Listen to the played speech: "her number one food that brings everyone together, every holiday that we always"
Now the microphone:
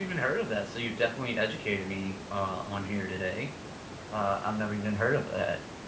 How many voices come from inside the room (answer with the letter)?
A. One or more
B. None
A